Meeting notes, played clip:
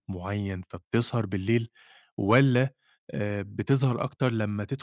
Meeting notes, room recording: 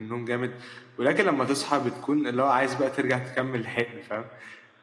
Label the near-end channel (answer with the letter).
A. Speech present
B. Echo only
A